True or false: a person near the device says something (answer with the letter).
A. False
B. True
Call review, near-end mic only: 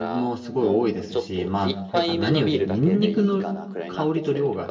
B